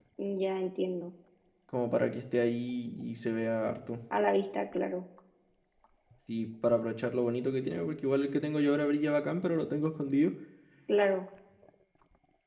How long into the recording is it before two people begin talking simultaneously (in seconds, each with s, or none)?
none